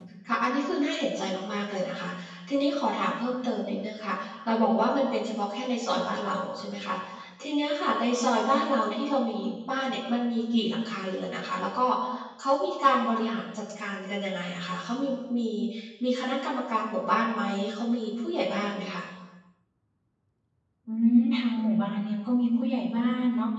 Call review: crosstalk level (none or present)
none